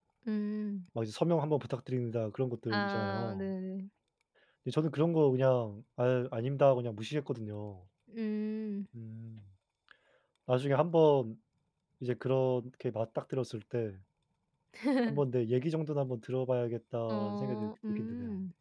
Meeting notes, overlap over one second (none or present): present